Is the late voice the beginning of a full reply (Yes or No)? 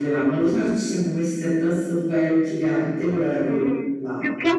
Yes